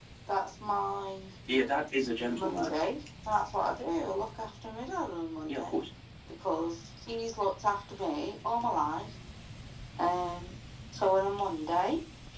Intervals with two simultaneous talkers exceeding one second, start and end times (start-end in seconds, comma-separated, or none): none